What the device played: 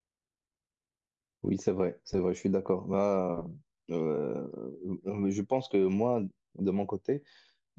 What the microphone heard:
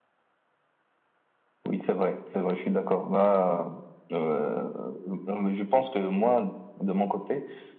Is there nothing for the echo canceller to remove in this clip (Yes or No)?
No